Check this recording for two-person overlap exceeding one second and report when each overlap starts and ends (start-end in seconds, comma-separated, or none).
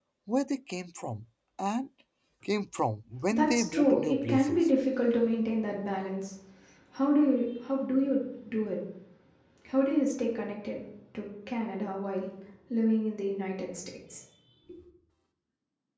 3.3-4.7